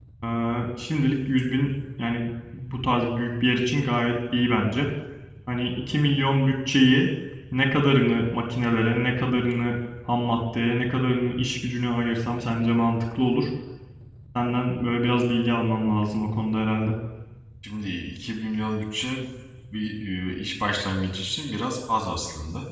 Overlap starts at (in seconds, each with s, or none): none